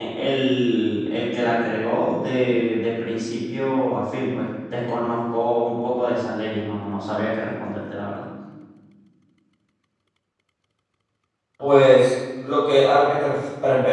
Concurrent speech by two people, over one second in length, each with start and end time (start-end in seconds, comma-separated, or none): none